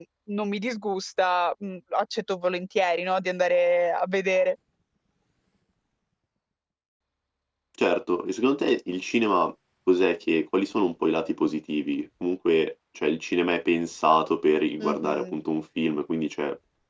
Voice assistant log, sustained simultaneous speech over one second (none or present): none